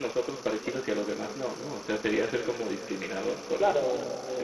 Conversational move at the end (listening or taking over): taking over